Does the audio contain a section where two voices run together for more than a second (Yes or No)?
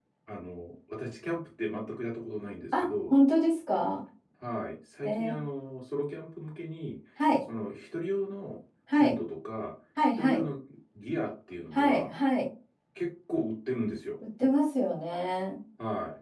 No